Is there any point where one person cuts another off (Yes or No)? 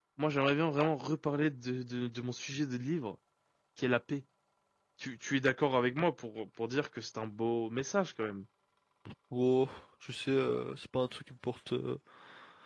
No